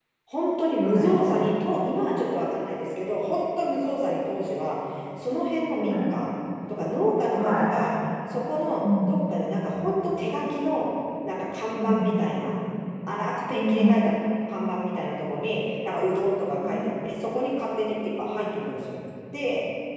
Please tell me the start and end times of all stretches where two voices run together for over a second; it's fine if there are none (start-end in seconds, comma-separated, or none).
none